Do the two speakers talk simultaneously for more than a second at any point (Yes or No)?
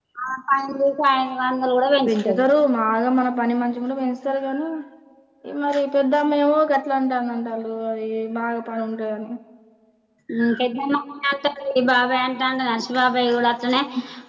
No